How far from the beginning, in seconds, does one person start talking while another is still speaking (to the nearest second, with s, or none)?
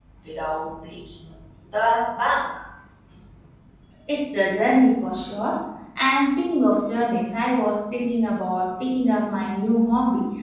none